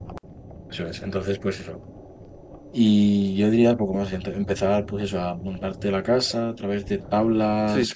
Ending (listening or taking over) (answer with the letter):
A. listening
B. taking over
B